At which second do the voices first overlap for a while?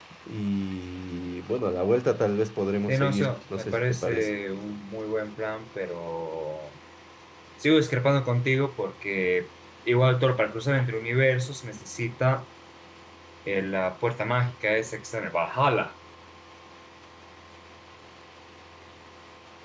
2.9 s

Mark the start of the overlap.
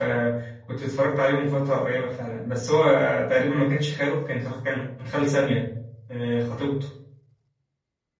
none

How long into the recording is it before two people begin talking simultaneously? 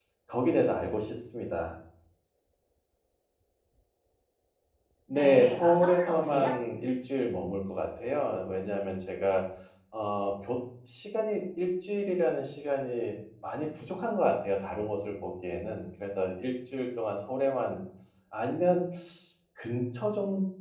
5.1 s

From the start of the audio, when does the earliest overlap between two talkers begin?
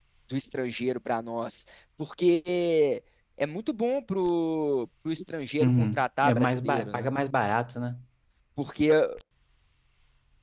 5.6 s

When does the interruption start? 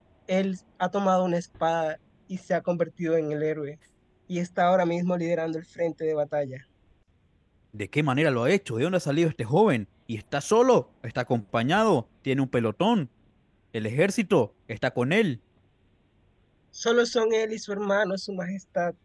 none

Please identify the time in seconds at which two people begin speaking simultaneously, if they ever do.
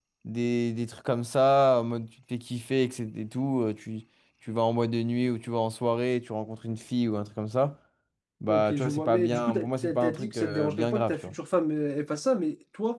8.5 s

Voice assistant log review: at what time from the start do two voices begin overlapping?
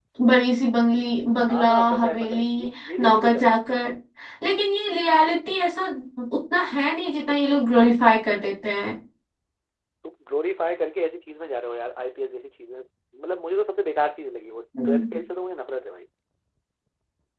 1.5 s

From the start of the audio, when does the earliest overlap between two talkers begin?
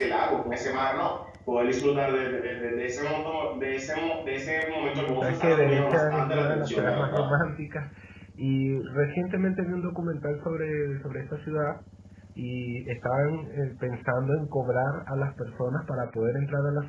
5.2 s

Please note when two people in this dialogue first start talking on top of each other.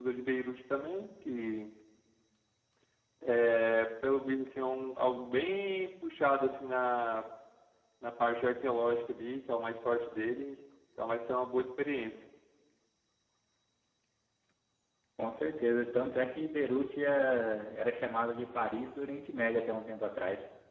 none

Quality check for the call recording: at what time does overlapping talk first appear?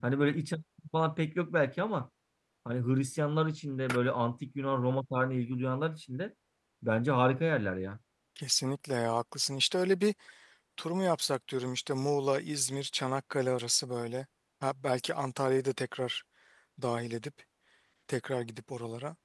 none

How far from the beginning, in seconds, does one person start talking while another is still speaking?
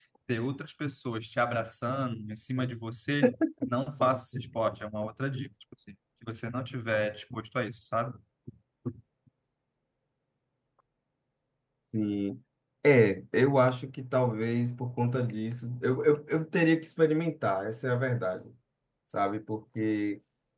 none

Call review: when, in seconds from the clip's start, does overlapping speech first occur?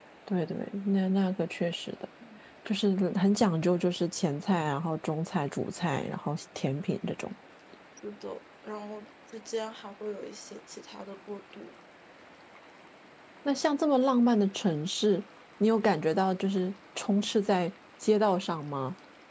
none

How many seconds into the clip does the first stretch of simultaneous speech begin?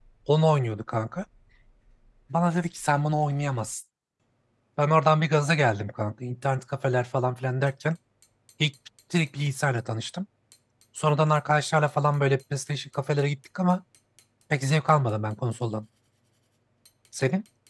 none

